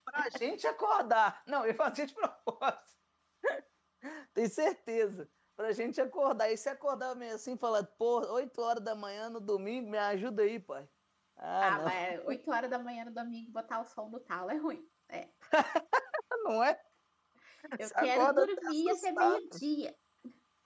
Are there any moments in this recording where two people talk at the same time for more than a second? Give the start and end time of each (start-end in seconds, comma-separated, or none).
17.8-19.6